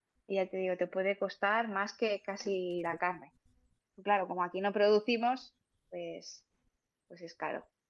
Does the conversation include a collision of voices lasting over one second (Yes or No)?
No